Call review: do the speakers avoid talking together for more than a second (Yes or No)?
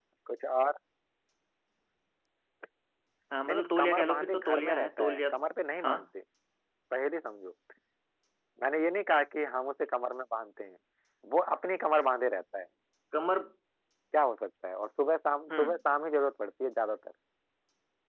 No